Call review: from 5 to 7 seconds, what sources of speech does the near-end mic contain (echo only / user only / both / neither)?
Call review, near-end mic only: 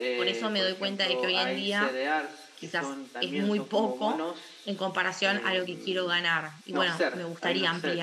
both